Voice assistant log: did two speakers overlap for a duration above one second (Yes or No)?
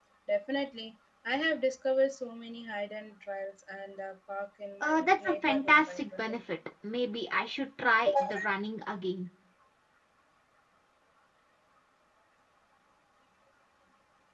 Yes